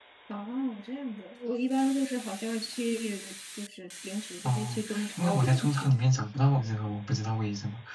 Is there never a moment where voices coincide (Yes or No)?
No